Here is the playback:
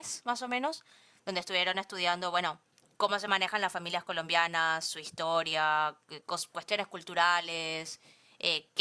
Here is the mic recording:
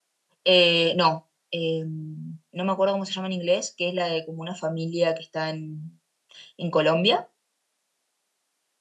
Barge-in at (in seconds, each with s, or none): 0.4 s